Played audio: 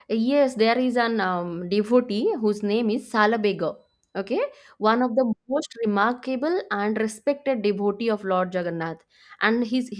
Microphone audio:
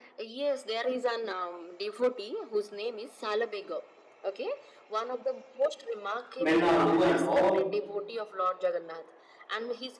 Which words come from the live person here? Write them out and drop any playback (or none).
men or women all